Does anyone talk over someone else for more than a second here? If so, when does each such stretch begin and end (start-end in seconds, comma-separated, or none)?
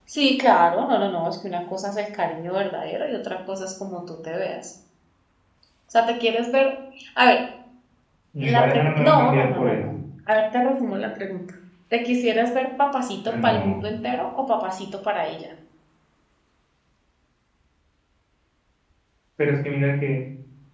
8.4-9.8